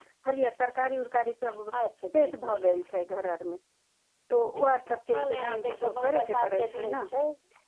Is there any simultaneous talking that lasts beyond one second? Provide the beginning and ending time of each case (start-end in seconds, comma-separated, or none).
5.1-7.0